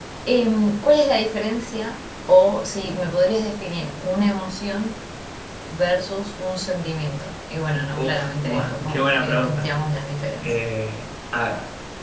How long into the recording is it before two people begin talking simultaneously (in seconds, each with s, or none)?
8.0 s